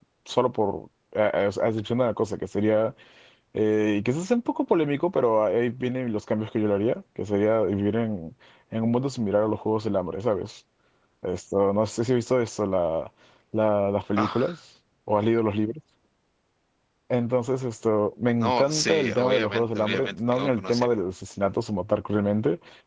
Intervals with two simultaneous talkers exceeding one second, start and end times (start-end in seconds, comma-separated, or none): 18.4-20.9